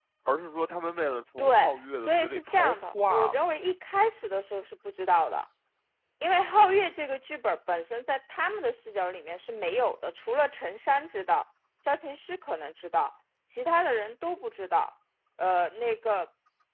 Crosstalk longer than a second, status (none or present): present